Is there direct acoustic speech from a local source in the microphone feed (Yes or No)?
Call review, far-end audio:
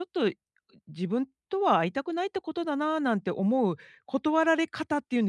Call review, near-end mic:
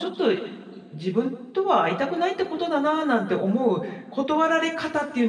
No